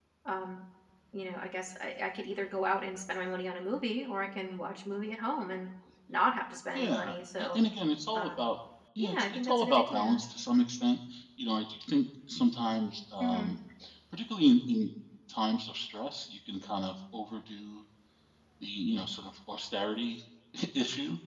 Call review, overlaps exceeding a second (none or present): present